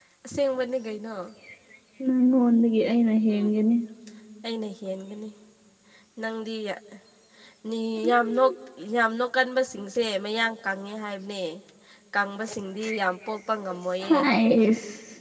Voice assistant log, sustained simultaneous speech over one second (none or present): none